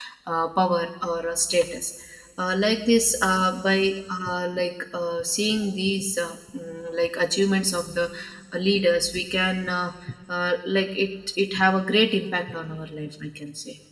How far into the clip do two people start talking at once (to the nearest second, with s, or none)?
none